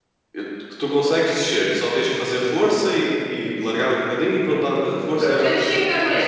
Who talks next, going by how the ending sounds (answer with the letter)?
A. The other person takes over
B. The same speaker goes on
A